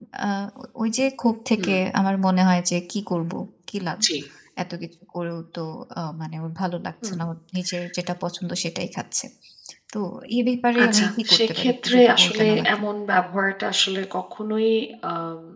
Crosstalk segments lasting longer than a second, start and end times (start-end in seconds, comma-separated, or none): 10.8-12.8